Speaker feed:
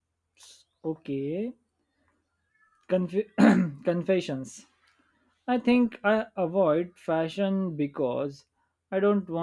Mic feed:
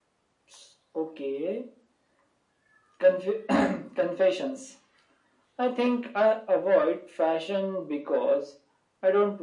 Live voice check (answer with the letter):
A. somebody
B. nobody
B